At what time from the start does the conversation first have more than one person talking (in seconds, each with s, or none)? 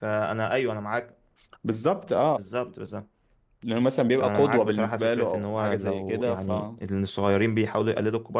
4.2 s